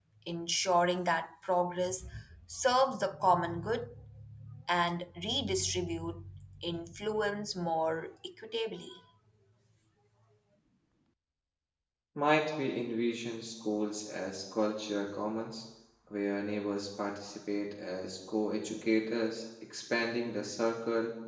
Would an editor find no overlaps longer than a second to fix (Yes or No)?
Yes